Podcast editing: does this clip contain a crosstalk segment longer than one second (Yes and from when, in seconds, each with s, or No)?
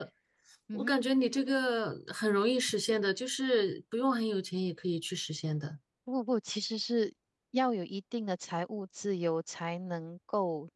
No